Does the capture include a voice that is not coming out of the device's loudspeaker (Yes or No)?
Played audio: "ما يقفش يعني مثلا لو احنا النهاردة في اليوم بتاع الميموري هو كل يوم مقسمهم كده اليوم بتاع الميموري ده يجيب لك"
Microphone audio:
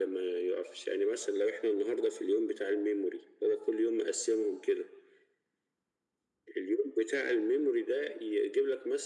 No